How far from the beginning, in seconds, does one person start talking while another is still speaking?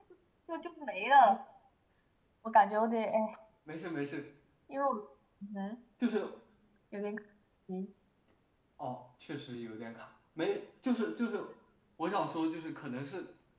none

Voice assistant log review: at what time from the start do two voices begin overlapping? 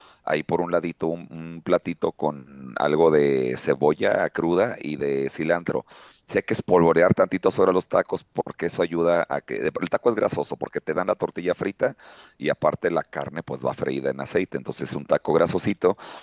none

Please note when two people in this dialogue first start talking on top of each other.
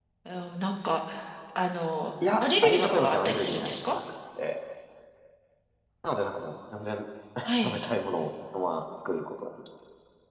2.4 s

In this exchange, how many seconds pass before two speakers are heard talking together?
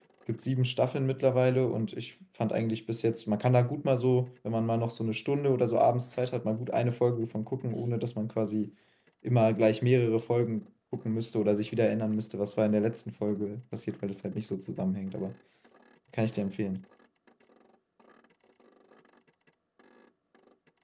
none

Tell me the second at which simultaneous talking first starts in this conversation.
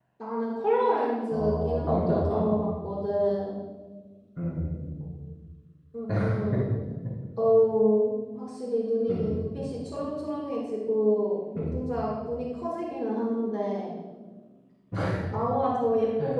1.3 s

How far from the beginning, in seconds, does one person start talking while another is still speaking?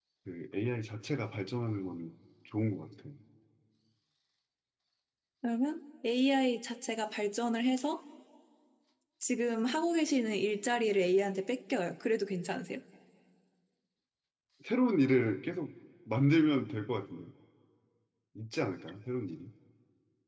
none

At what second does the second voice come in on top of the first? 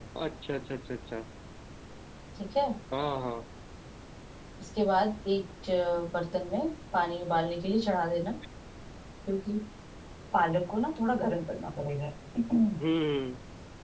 none

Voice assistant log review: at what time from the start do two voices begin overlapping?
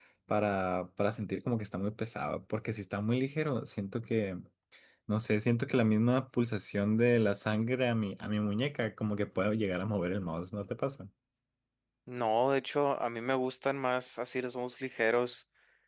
none

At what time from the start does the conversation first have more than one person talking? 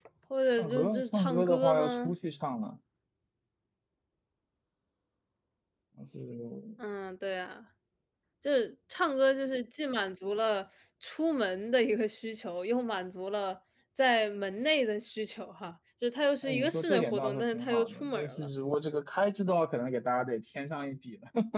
0.6 s

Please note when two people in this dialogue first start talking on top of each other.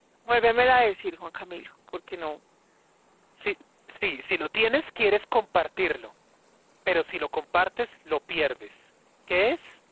none

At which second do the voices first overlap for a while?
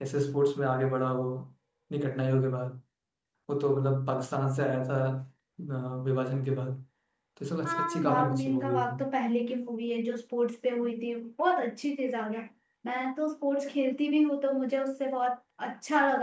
7.7 s

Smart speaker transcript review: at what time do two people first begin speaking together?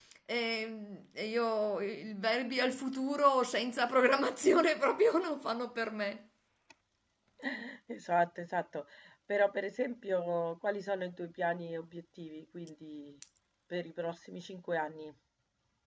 none

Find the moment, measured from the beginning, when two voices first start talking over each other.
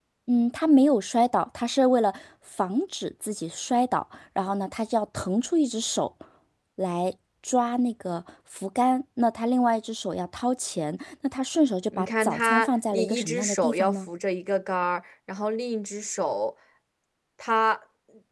11.9 s

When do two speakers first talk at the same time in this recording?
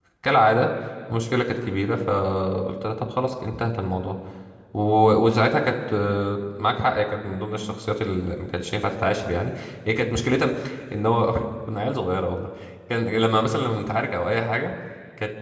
none

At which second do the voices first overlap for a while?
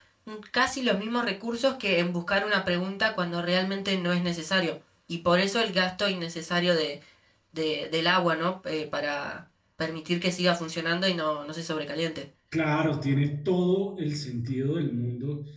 none

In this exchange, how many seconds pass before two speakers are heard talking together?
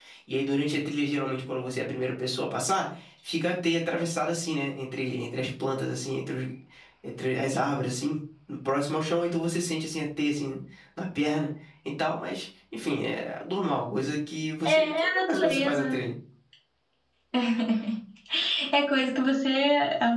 14.7 s

